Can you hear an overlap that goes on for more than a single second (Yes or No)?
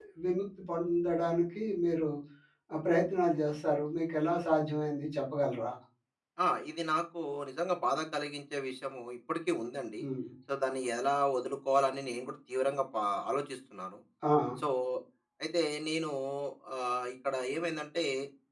No